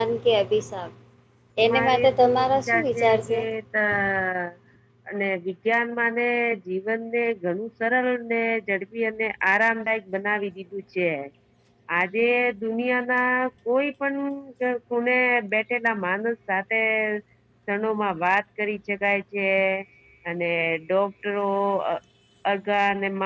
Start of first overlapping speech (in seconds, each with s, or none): 1.6 s